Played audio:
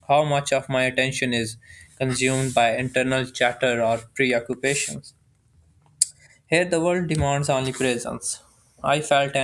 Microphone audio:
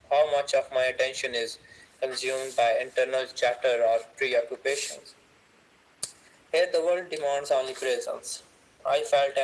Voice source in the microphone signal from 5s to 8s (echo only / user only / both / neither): echo only